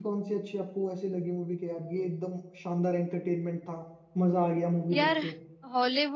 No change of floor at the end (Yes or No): No